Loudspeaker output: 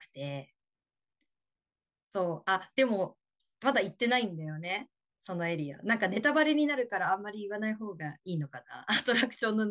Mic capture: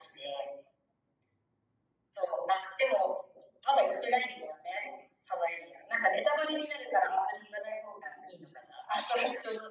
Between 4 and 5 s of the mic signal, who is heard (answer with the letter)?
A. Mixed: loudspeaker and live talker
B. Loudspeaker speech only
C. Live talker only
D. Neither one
B